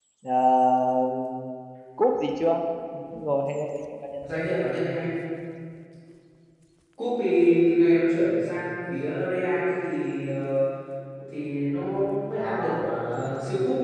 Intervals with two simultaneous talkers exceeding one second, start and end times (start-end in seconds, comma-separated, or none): none